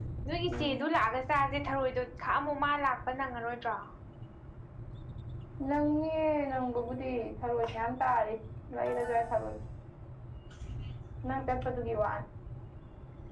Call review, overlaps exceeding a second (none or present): none